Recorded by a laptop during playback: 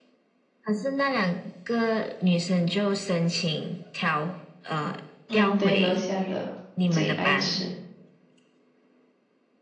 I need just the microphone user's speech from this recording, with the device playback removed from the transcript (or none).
嗯，对，楼下的我最爱吃。